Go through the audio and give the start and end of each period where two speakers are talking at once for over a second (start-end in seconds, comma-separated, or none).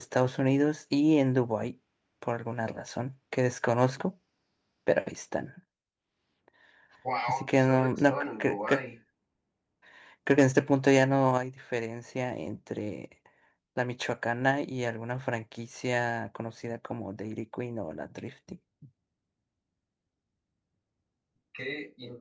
7.3-8.8